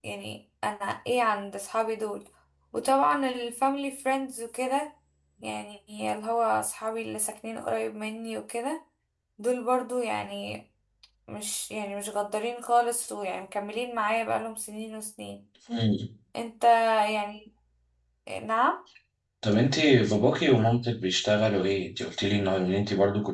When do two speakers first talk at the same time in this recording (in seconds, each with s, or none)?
none